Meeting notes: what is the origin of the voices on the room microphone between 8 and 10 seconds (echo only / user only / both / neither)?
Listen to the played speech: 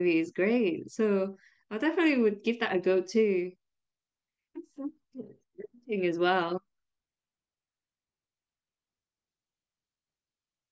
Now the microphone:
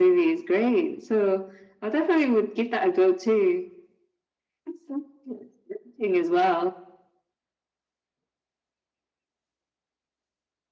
neither